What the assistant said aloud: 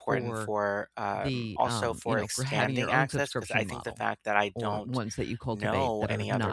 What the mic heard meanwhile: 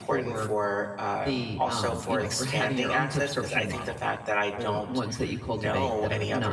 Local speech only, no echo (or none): none